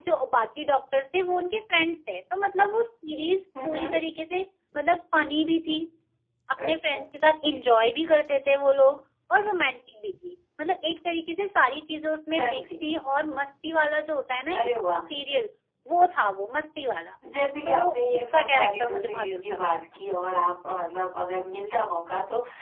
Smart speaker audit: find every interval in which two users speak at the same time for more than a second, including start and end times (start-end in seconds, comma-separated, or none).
17.6-19.8